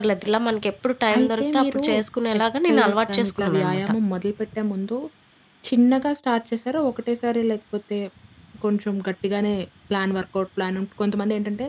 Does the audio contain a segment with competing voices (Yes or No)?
Yes